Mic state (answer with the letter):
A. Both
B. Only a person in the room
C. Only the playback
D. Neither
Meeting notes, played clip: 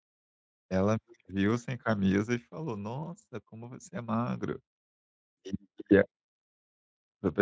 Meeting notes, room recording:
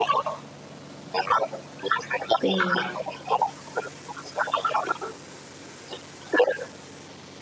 A